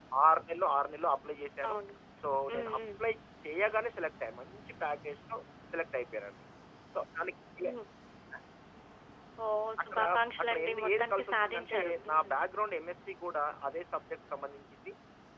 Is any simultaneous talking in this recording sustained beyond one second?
Yes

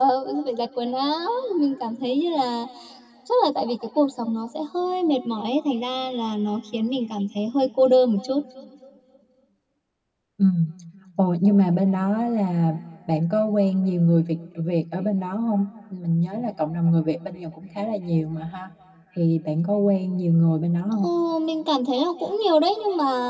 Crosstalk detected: No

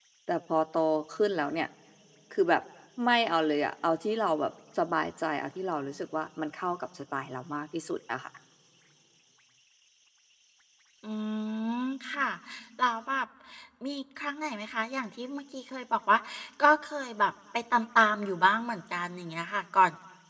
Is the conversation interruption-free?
Yes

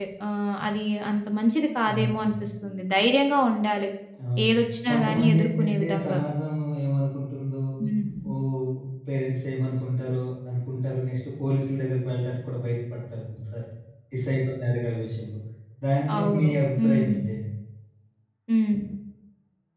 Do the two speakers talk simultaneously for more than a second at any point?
Yes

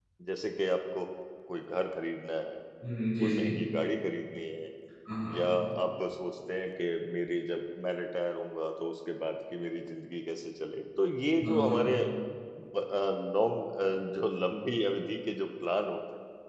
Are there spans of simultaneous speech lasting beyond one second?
No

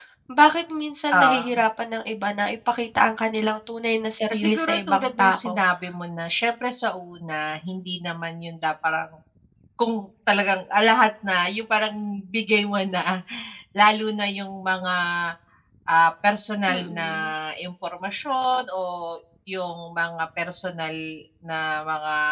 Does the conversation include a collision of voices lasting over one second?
Yes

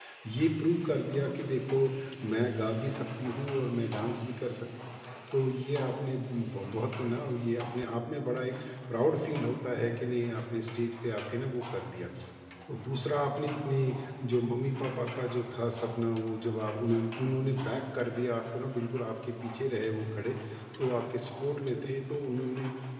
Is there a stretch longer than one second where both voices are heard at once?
No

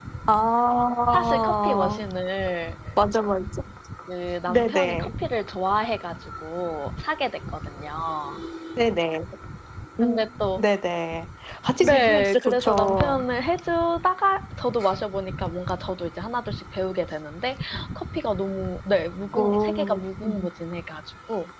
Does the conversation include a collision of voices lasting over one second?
Yes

